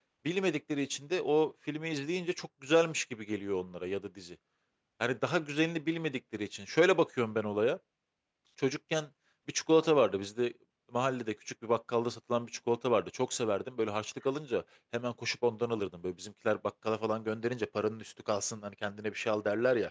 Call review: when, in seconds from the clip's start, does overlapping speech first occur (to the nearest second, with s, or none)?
none